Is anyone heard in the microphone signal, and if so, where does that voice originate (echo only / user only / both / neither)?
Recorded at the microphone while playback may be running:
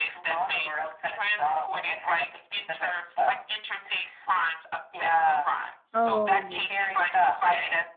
both